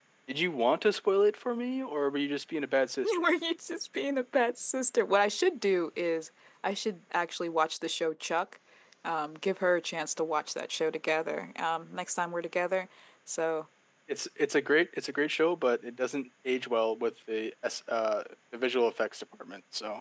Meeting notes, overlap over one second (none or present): none